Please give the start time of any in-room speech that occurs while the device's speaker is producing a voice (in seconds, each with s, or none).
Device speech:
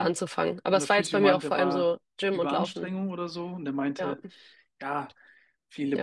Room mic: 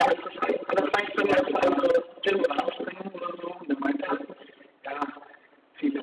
none